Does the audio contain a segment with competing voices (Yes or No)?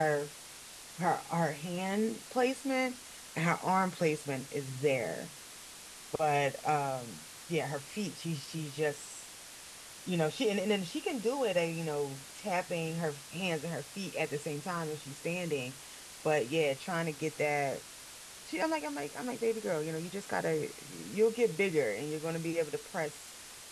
No